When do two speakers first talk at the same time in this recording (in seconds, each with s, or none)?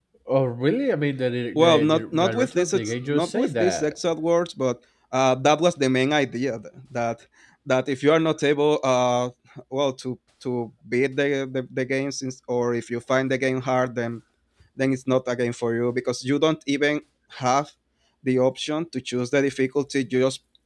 1.6 s